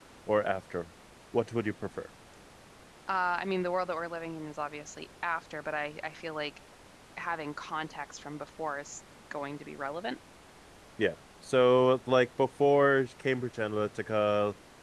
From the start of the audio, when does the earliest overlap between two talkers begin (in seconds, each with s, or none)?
none